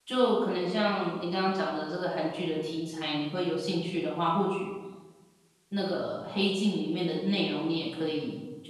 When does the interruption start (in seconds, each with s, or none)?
none